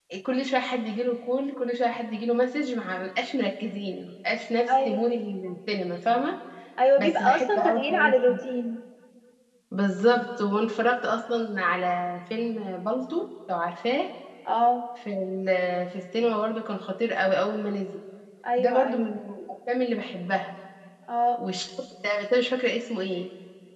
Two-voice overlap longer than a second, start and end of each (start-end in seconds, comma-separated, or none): 7.0-8.4